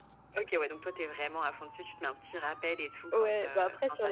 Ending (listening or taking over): taking over